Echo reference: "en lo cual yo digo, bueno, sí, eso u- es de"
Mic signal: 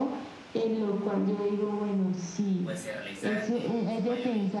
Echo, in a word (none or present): present